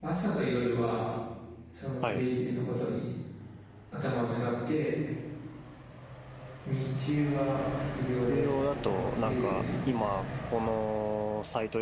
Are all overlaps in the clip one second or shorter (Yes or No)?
No